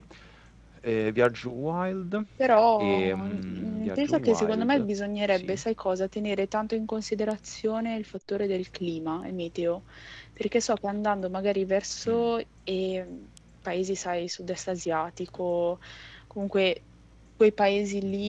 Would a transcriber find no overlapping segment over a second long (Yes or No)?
No